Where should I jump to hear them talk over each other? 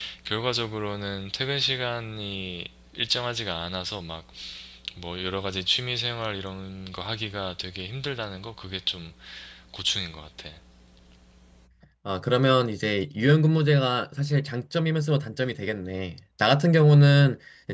none

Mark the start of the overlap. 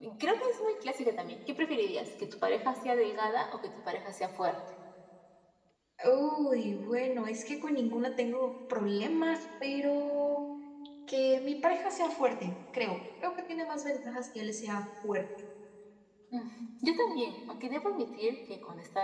none

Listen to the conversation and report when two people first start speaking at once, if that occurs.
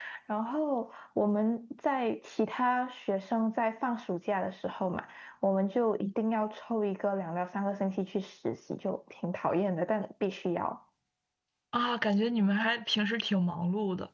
none

